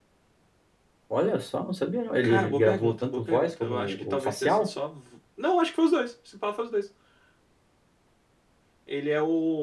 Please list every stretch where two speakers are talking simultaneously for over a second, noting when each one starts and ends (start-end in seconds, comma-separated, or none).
2.2-4.7